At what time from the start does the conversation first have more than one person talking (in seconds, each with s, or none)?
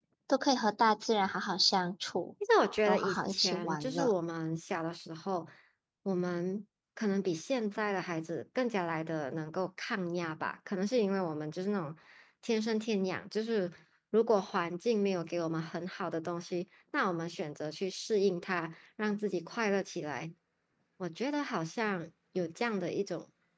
2.9 s